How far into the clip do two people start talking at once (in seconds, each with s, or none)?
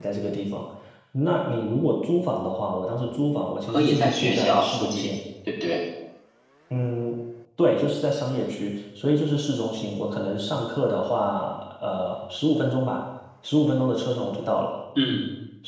3.7 s